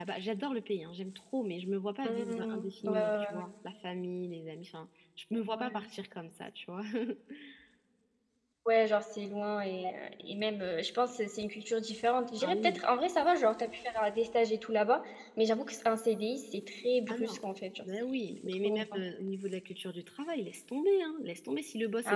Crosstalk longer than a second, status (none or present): present